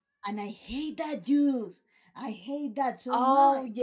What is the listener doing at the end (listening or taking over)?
taking over